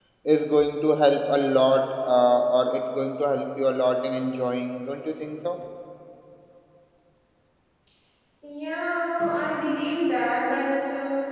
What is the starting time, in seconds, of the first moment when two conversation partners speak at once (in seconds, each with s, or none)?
none